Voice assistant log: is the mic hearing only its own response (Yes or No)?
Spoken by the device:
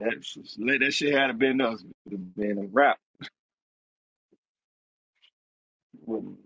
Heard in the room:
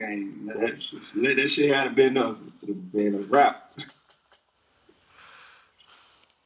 Yes